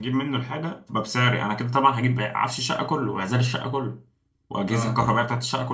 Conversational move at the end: listening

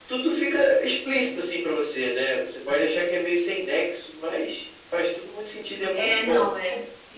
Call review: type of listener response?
taking over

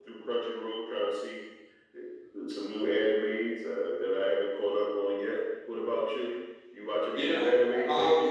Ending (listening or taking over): taking over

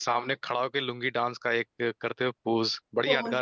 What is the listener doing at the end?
taking over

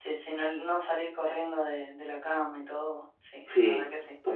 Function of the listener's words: taking over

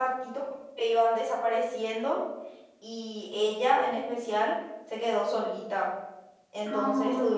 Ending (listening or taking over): listening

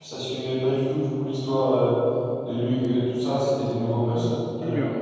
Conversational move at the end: taking over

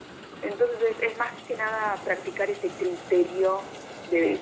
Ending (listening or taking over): taking over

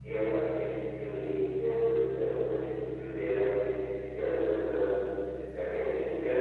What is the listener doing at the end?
listening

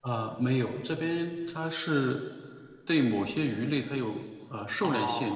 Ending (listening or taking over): taking over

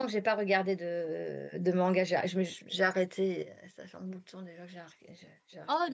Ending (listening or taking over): taking over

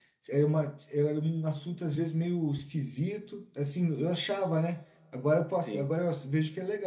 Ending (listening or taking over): listening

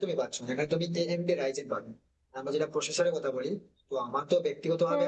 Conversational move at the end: listening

